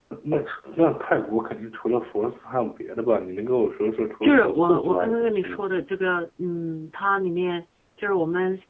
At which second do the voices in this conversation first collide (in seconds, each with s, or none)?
4.2 s